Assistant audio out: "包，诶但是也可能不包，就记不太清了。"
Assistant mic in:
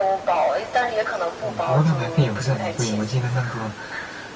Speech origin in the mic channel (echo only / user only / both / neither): both